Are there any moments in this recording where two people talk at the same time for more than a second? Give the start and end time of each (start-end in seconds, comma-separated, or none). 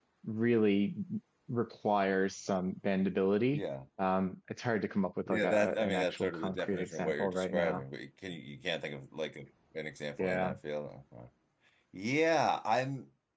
5.3-7.8